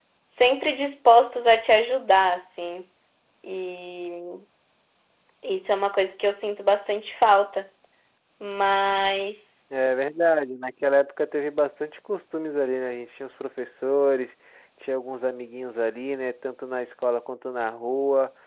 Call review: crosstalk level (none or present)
none